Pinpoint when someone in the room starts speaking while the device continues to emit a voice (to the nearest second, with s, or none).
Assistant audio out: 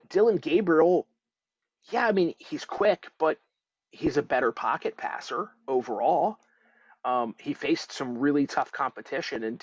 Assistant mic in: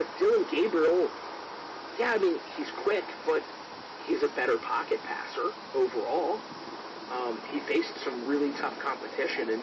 none